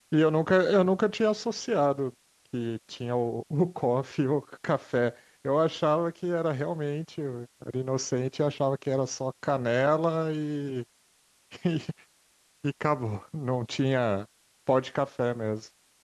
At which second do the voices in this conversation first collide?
none

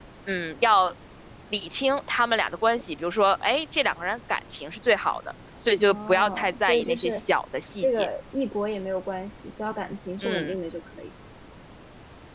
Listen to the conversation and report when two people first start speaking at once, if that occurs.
5.8 s

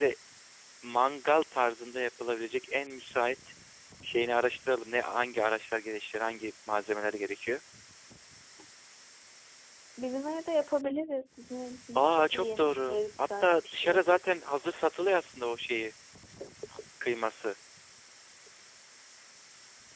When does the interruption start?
12.0 s

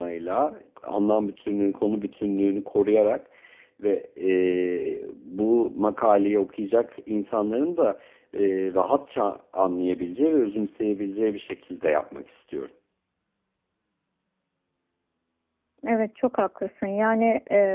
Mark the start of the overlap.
none

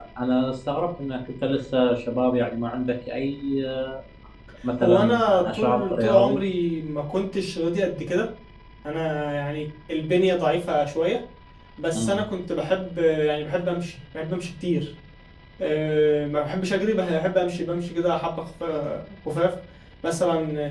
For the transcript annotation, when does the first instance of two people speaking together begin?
4.8 s

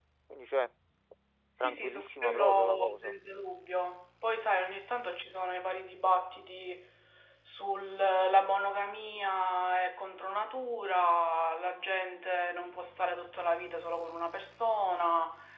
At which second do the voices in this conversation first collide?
1.6 s

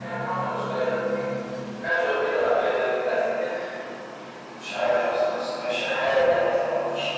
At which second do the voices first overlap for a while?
none

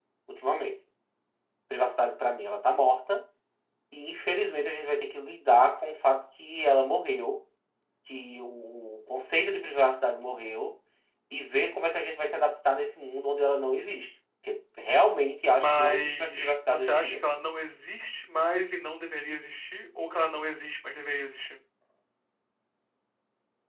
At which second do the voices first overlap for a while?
15.6 s

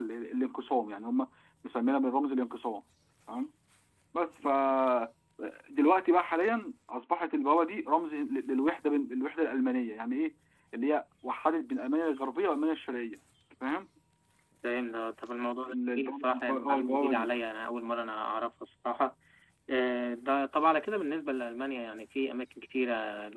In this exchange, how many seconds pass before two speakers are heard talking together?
15.7 s

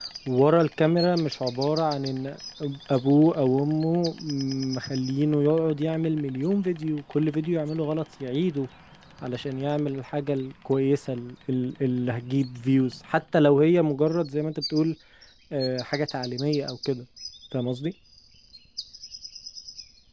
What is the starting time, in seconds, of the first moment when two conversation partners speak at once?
none

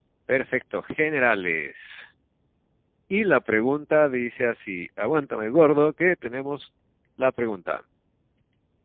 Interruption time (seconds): none

